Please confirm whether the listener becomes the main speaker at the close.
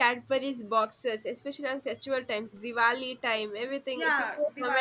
Yes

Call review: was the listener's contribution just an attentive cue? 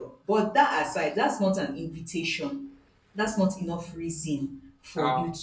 No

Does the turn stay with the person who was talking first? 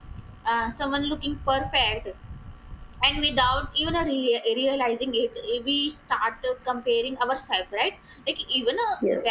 Yes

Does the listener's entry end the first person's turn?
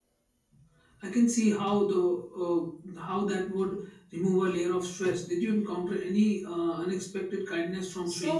Yes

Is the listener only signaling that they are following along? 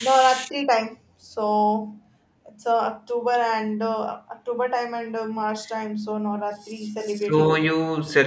No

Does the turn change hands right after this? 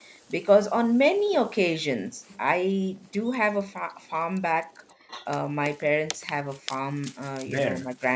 No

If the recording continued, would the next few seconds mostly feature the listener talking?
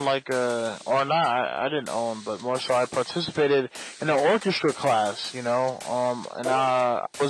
No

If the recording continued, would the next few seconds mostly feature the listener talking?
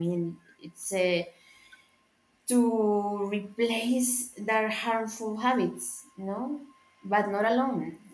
No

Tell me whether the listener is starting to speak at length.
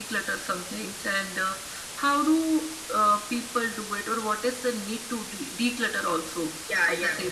Yes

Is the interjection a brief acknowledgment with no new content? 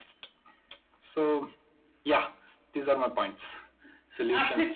No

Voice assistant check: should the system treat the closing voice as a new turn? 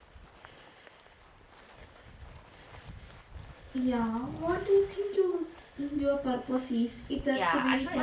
Yes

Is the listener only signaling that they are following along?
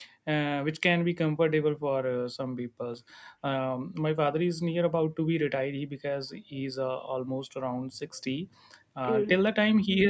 Yes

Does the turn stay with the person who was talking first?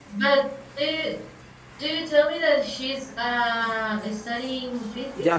No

